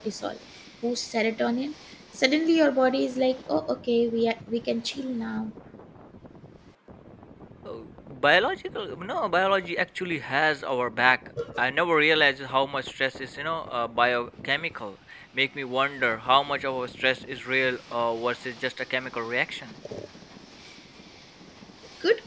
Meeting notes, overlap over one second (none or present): none